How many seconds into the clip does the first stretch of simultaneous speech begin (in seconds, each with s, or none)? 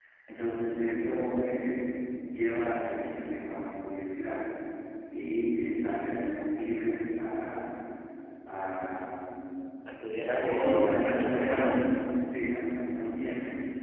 10.3 s